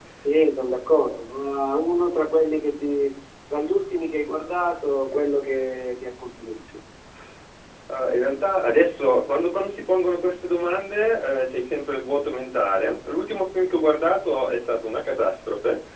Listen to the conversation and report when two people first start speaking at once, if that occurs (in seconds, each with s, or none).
none